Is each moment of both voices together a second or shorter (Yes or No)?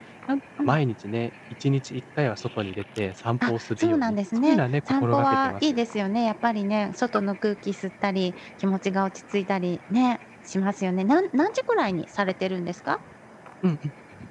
No